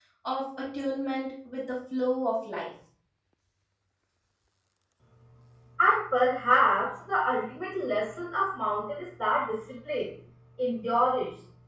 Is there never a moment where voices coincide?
Yes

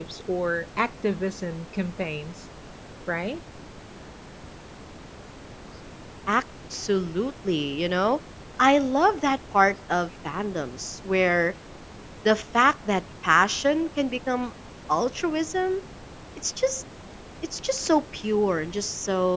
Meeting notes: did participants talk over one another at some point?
No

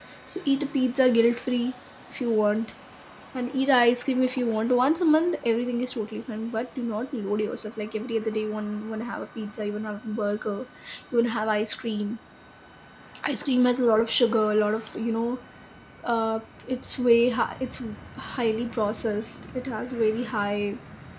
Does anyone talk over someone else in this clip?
No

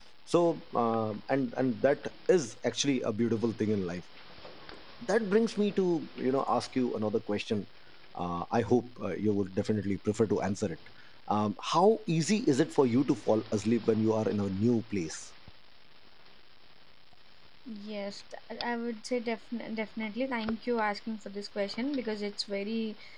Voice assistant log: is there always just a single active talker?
Yes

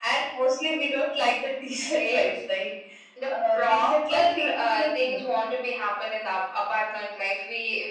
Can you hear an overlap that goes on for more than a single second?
Yes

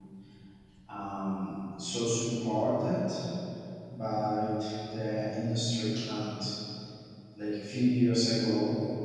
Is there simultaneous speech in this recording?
No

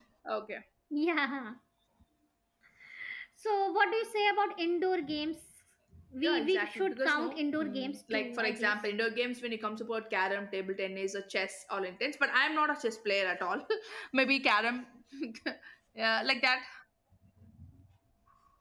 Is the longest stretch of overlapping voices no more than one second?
No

